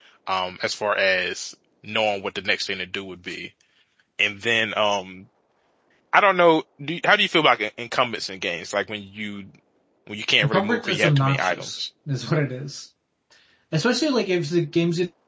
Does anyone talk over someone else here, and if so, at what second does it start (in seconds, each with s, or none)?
10.4 s